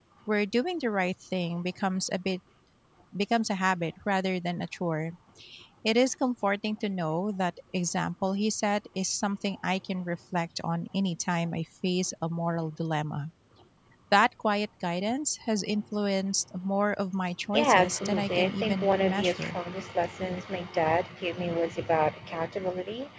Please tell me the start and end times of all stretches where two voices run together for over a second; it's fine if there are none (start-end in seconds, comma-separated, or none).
17.5-19.6